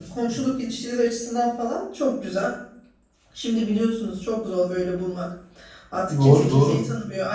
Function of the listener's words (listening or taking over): listening